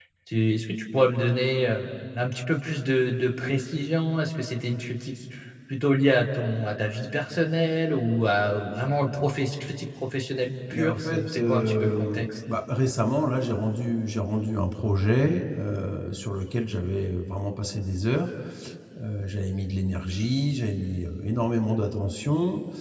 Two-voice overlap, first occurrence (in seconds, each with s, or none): 10.7 s